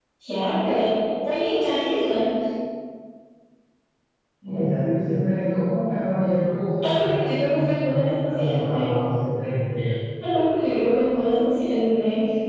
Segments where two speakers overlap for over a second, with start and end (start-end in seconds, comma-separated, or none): 7.0-8.9